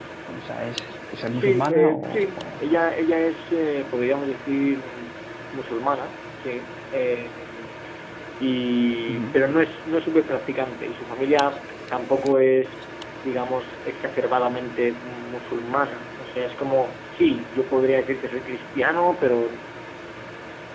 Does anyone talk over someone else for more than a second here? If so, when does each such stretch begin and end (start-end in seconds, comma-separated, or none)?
1.3-2.7